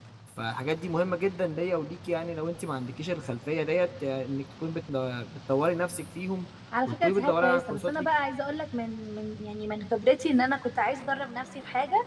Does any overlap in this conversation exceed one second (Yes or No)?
Yes